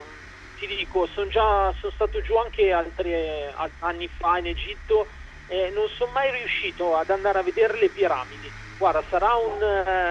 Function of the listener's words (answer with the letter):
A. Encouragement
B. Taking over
A